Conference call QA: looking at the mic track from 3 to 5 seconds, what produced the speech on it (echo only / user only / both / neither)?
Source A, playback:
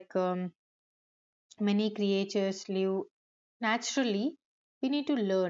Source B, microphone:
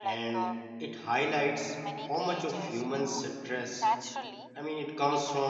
both